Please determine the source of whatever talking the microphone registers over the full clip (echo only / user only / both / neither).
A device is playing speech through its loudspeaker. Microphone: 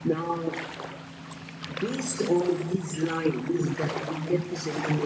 echo only